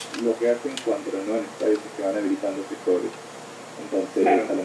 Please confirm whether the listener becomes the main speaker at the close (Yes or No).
No